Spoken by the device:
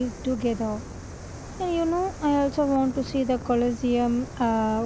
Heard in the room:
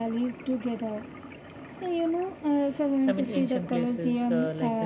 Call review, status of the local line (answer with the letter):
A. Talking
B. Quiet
A